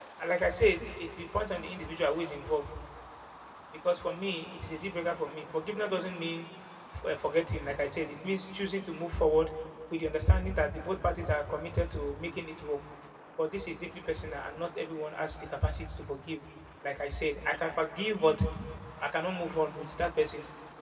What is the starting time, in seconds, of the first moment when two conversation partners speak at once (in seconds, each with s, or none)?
none